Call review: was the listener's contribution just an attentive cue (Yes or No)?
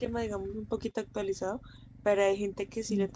Yes